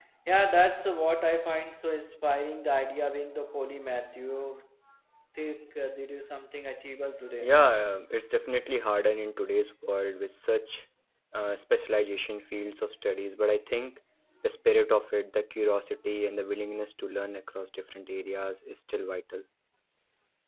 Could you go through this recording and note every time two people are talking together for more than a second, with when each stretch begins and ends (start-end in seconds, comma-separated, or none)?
none